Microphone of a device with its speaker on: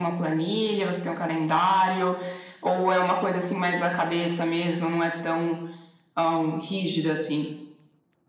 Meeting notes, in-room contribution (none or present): none